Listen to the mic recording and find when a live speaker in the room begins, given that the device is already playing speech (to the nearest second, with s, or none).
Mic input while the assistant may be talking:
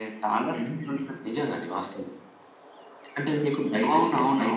none